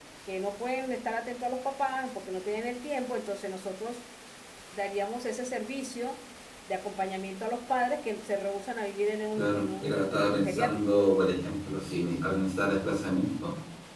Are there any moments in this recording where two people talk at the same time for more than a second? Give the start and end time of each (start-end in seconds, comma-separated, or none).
9.3-11.0